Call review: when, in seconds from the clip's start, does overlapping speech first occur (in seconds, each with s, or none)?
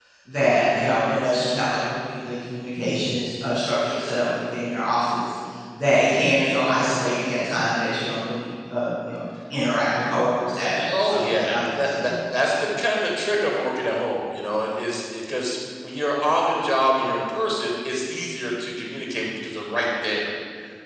10.7 s